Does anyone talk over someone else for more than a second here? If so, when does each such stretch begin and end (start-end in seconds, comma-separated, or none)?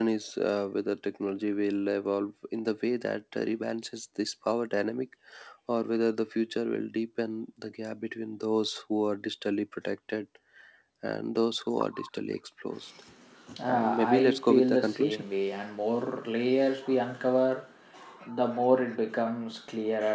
13.7-15.2